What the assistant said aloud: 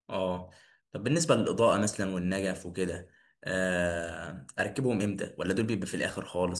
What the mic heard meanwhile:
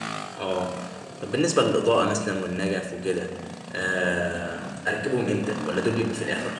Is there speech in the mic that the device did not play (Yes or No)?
No